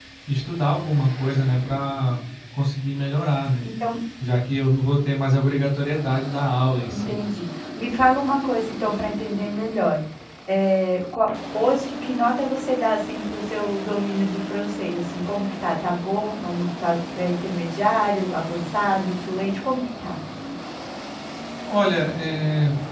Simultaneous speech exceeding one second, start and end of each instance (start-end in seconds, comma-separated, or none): none